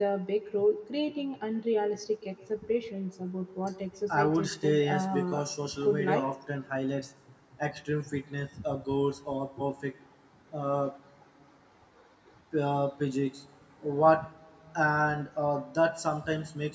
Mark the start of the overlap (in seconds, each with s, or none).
4.2 s